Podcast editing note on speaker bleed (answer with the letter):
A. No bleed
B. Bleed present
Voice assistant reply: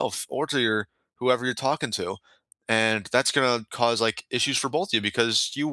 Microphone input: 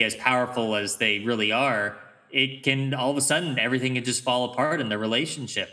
A